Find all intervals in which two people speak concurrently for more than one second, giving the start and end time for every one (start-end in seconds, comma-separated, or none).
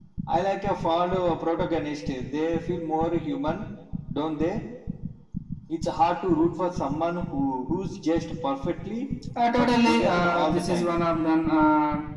9.5-11.0